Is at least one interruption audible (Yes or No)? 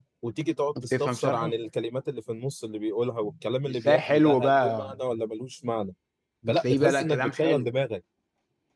Yes